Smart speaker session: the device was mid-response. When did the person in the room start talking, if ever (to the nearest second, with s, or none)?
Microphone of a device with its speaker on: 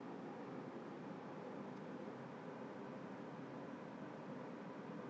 none